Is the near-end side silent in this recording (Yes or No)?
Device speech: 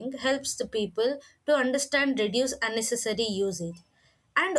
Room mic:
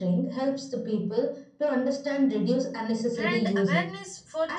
No